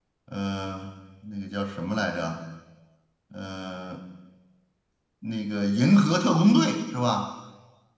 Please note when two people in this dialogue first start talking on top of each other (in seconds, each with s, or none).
none